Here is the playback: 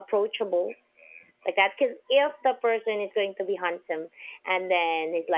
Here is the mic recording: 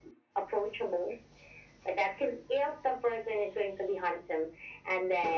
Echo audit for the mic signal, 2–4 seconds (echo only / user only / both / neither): echo only